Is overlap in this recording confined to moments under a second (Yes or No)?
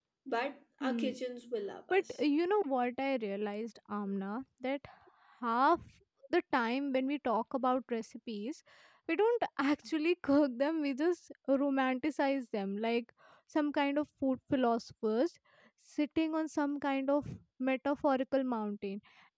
Yes